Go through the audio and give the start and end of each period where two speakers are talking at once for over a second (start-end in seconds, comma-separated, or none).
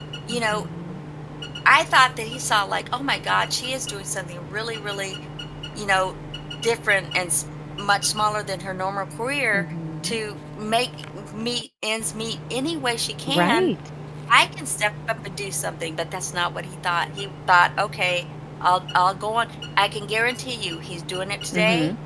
none